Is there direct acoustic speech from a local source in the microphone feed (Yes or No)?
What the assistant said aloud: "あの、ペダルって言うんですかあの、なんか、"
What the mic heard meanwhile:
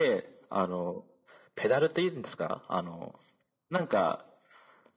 No